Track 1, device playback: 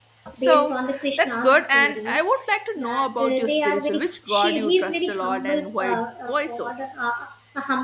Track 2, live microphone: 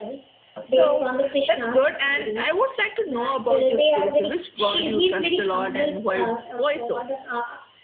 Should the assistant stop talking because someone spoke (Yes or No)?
No